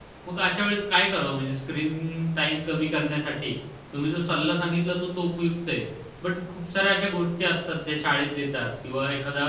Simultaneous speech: No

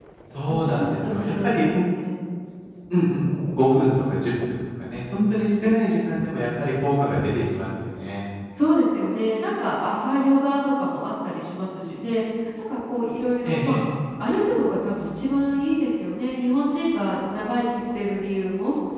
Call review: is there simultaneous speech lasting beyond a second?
Yes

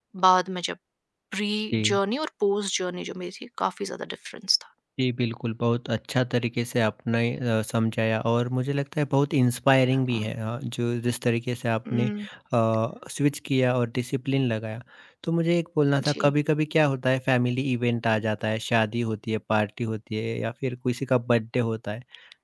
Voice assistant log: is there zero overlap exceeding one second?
Yes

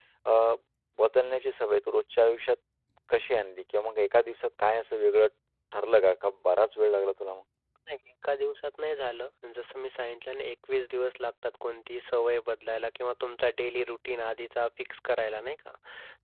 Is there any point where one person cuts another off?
No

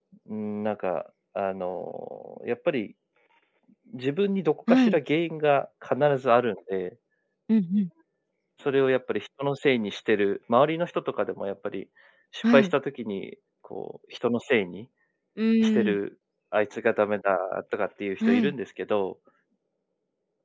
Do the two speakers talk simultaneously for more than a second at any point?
No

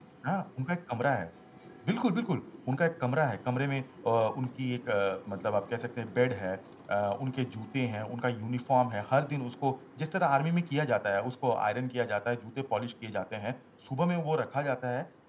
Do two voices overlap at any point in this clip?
No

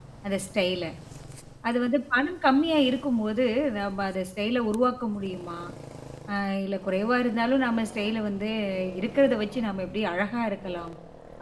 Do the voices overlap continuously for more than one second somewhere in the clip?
No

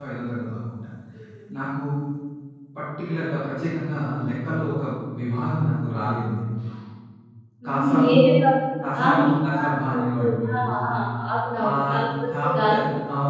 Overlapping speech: Yes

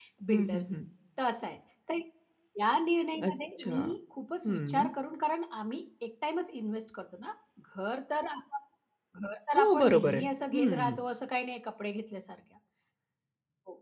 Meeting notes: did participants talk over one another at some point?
Yes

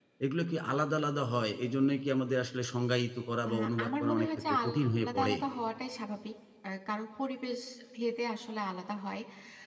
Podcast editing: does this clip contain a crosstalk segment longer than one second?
Yes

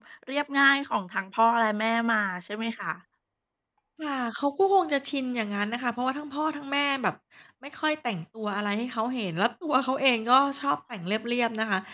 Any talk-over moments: No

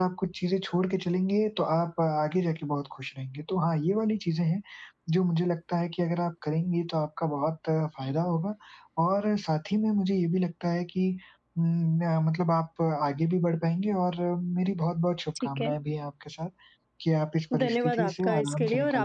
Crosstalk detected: Yes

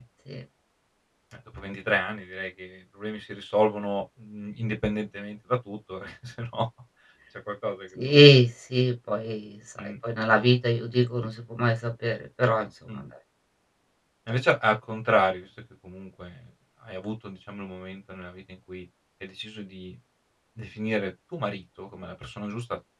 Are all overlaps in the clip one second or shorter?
Yes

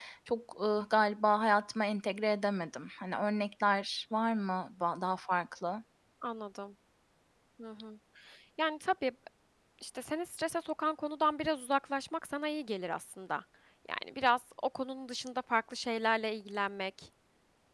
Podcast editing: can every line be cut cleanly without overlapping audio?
Yes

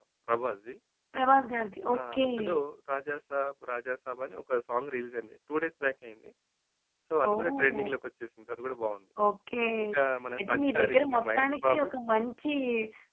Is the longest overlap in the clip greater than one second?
Yes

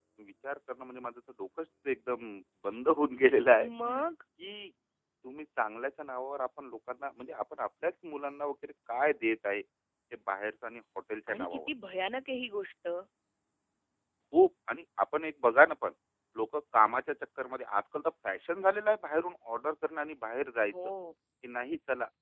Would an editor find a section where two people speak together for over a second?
No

